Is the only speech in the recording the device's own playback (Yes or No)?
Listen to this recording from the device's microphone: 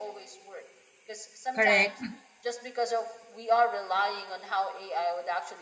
No